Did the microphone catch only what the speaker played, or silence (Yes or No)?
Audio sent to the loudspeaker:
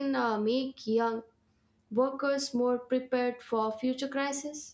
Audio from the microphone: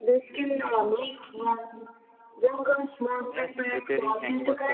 No